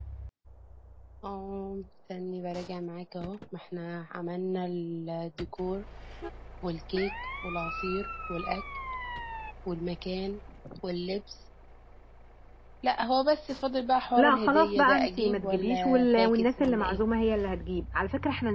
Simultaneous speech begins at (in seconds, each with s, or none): 14.2 s